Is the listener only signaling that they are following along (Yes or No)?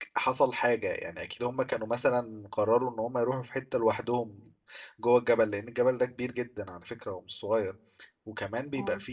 Yes